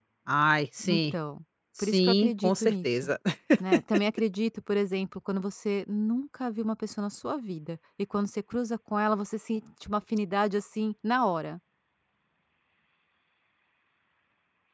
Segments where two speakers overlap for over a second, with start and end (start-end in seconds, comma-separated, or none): 1.8-3.1